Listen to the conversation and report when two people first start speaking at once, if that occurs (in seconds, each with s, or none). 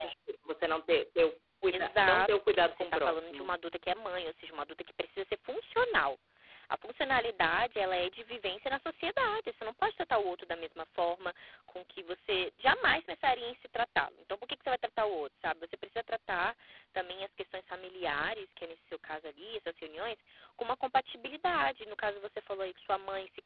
1.7 s